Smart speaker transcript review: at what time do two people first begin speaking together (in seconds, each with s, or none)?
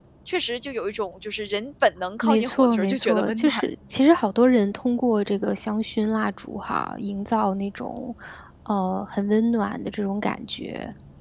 2.2 s